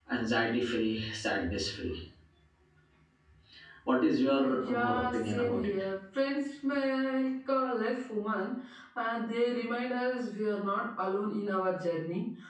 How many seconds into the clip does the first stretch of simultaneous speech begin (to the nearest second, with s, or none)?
4 s